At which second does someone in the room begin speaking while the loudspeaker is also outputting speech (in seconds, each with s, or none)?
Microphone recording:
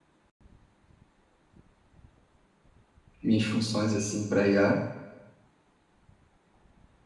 3.2 s